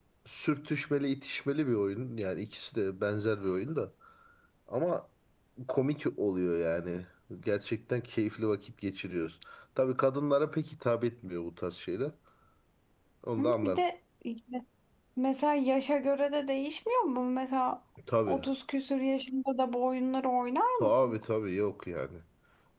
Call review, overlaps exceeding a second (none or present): none